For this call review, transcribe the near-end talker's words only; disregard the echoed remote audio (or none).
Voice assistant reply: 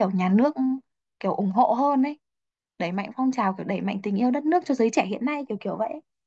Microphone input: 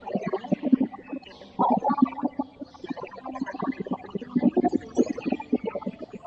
none